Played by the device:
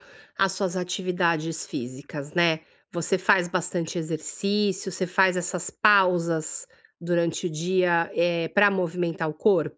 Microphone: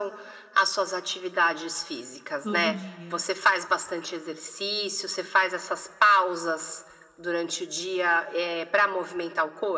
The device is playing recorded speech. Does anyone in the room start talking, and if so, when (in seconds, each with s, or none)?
2.4 s